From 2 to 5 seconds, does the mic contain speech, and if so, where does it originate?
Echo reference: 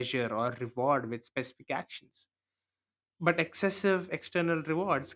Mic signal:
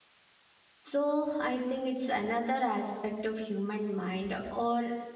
user only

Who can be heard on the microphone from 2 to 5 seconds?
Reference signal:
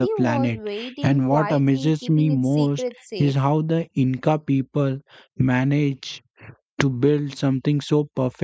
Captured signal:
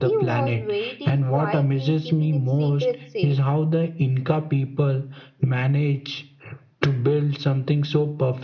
echo only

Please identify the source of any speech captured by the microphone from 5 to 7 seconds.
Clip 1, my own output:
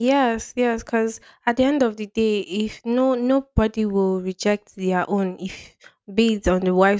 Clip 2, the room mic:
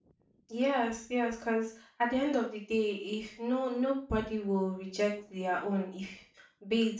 echo only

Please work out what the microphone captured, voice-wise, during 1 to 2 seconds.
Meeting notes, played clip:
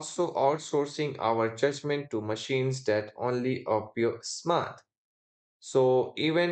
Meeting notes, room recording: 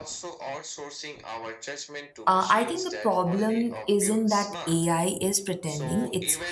echo only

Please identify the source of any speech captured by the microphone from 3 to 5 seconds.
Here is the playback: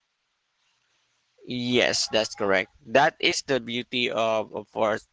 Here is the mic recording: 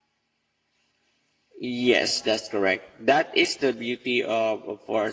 echo only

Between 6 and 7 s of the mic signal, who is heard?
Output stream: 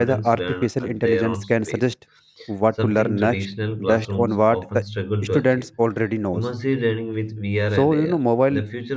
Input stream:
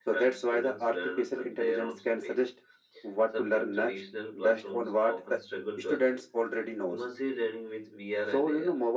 echo only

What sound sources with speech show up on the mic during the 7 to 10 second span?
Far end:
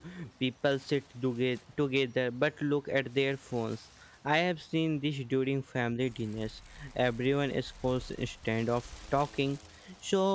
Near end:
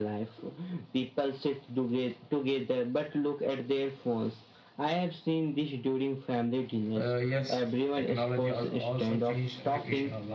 both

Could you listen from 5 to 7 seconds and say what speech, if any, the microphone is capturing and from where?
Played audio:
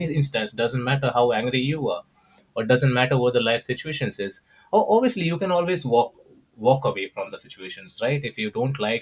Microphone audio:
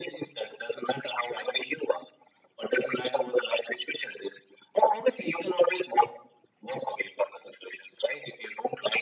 echo only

